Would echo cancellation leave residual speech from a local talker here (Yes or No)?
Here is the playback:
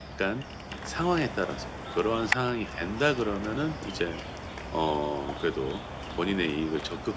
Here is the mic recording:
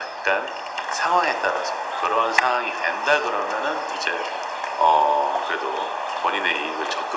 No